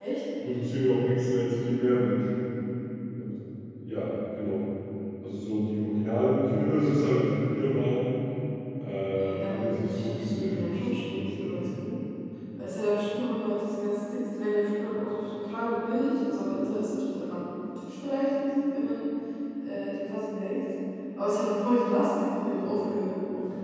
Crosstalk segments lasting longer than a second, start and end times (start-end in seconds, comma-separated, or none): 9.2-11.6